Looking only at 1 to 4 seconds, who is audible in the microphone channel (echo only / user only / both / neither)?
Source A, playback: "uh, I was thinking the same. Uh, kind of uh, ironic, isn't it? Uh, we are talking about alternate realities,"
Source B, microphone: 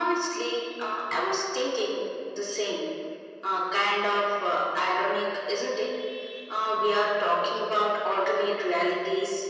echo only